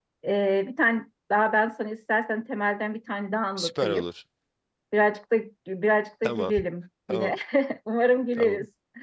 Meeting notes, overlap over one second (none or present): none